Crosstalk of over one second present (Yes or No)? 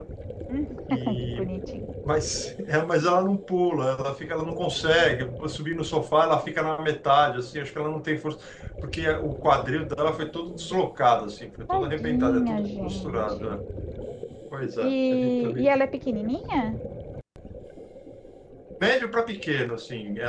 Yes